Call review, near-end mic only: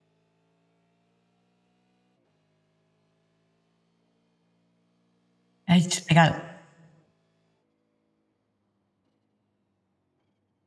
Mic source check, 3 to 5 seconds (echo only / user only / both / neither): neither